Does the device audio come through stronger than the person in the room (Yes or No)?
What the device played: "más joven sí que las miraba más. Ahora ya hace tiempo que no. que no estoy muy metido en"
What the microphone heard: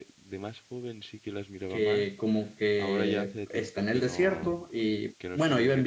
No